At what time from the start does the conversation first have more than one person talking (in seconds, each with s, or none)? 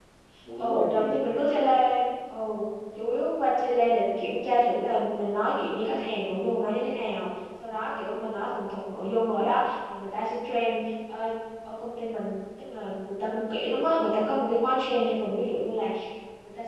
0.6 s